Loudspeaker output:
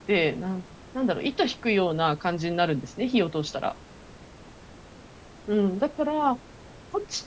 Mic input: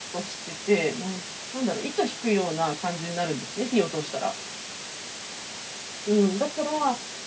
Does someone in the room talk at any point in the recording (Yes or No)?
No